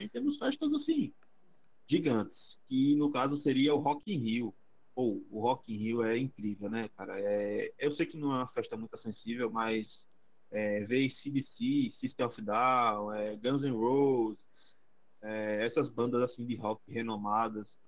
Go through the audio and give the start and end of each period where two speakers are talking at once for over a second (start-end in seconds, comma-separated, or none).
none